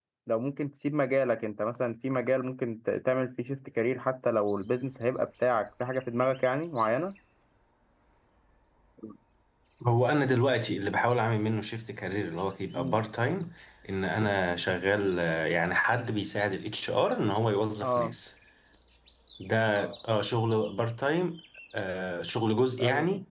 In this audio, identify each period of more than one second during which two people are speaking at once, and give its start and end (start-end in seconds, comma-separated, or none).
none